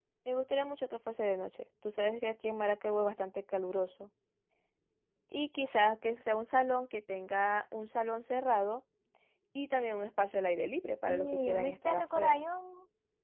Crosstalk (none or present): present